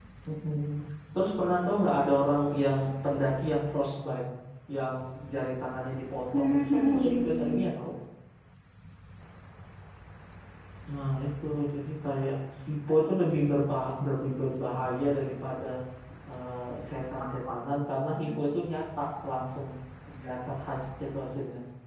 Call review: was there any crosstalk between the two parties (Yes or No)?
Yes